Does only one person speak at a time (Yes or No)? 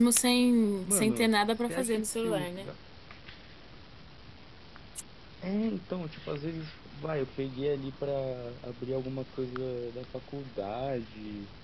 No